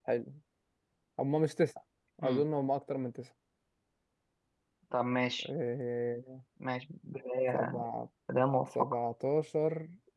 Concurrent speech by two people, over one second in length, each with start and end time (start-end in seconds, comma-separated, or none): none